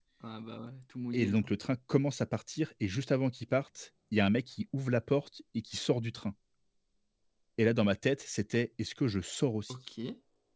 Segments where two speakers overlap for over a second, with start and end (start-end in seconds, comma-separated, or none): none